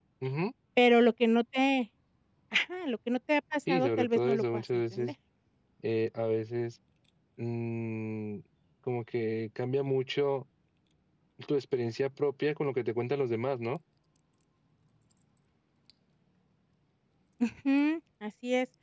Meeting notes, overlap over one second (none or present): present